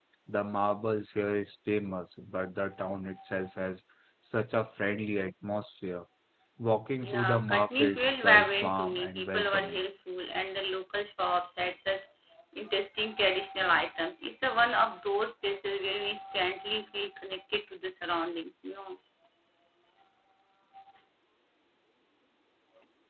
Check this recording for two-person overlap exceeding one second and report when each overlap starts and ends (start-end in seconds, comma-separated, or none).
7.0-9.8